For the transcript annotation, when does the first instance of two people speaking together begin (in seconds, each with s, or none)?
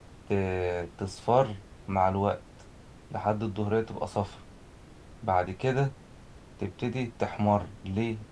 none